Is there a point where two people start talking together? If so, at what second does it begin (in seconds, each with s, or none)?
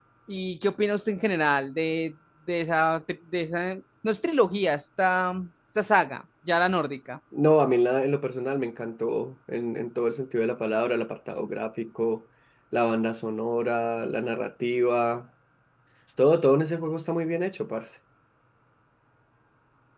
none